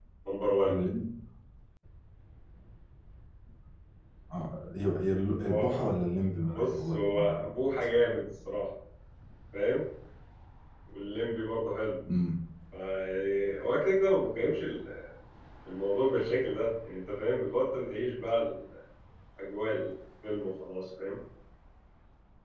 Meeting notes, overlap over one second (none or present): present